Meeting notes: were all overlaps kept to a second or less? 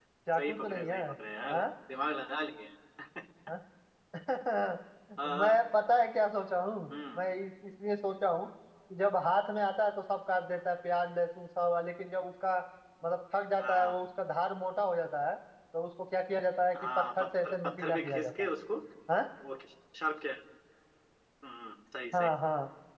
No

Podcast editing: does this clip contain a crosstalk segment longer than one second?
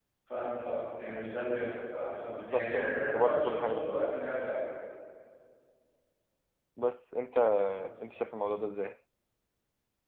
Yes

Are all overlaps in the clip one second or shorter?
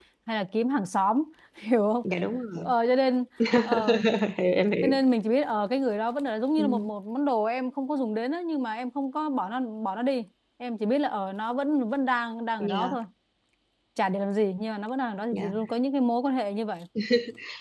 Yes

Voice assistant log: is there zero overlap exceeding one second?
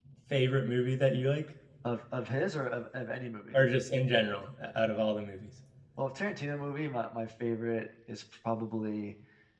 Yes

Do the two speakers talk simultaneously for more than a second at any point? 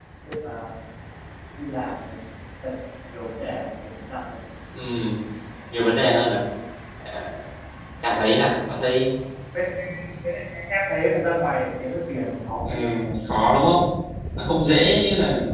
No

